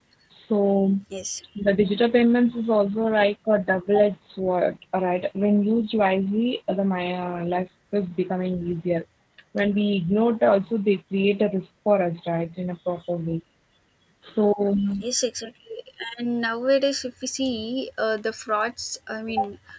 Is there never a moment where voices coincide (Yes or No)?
Yes